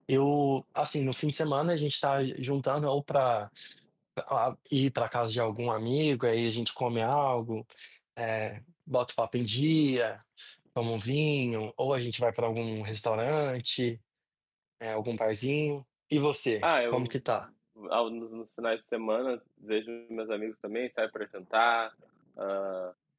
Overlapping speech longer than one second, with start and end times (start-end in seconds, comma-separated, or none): none